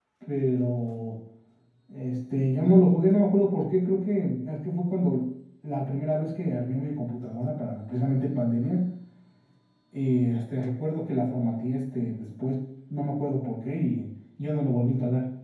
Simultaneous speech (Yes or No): No